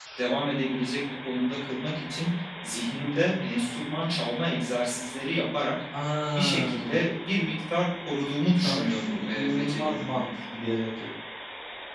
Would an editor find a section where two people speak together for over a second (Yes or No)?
Yes